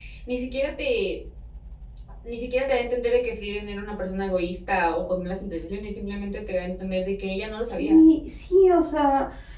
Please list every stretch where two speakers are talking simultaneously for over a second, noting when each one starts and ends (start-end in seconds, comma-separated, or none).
none